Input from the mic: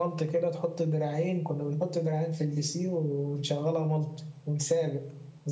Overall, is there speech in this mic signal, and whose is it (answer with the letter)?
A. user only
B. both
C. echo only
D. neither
C